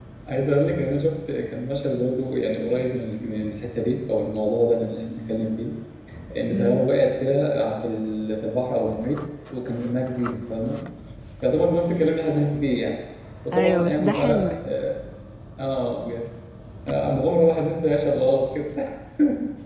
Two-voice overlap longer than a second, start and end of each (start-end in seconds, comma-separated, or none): 13.5-14.8